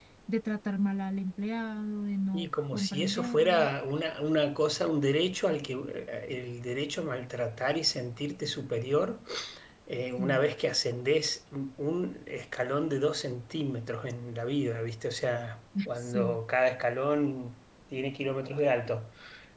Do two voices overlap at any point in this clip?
Yes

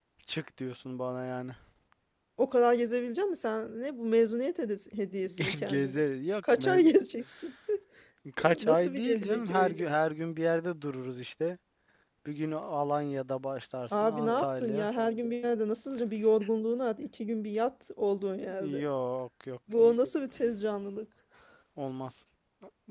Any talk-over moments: Yes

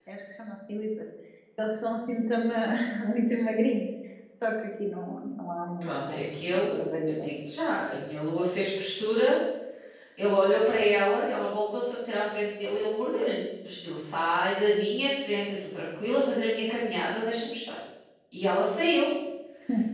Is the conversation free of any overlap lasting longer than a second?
No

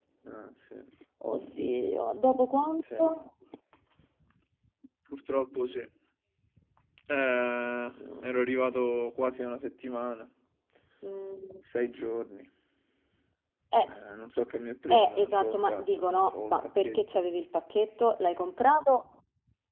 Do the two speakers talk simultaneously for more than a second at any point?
Yes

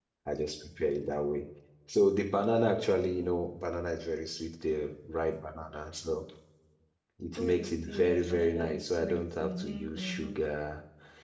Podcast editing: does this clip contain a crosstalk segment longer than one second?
Yes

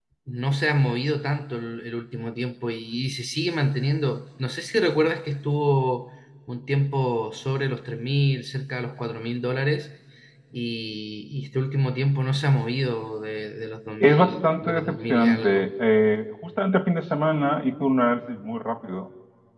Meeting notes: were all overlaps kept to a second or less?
No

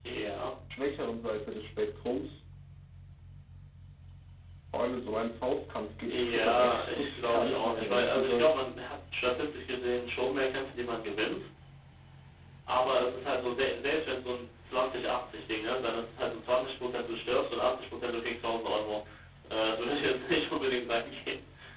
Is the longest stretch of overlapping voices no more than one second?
No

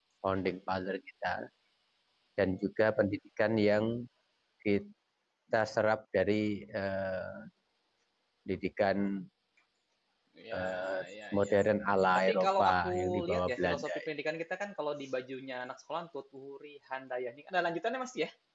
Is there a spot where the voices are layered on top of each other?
Yes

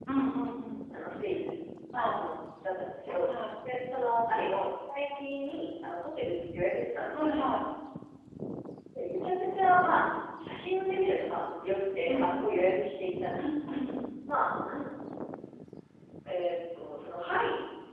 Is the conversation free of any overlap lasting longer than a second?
Yes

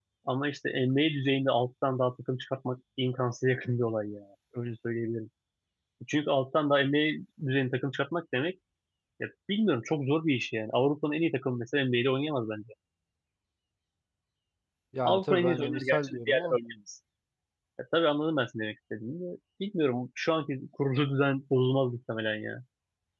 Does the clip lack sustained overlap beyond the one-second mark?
No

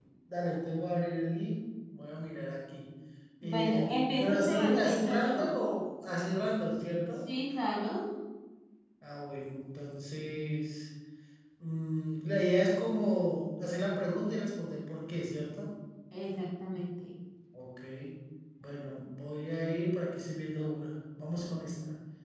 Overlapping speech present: Yes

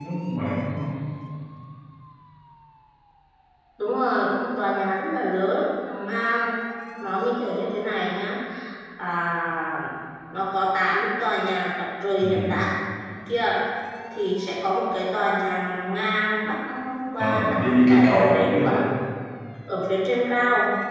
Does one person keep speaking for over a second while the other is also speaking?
Yes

